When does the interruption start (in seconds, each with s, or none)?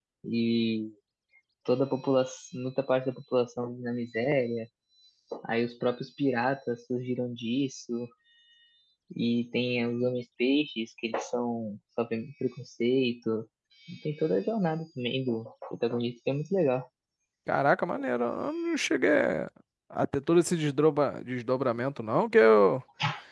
none